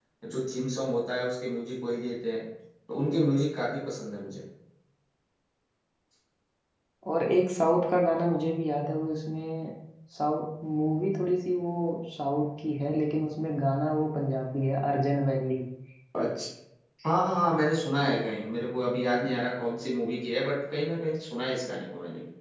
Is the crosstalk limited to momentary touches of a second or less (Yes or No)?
Yes